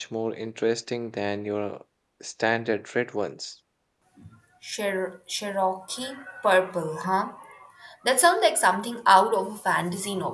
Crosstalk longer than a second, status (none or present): none